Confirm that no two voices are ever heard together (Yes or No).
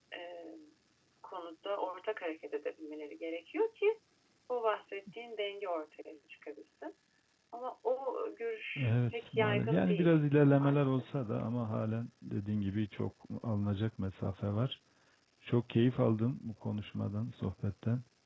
No